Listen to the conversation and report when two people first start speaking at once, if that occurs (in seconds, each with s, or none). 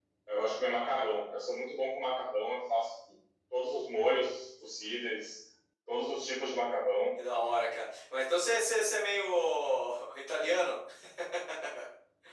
none